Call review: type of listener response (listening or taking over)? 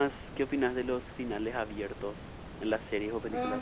taking over